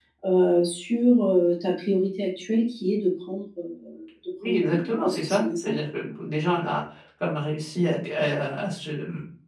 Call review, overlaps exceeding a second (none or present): present